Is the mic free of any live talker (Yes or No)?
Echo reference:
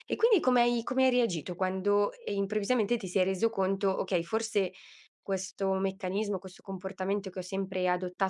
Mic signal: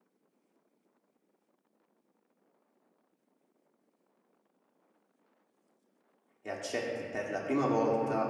No